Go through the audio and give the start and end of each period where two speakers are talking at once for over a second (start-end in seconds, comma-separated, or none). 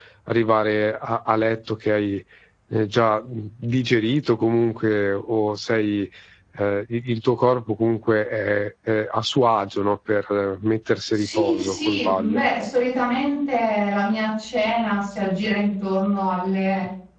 11.1-12.4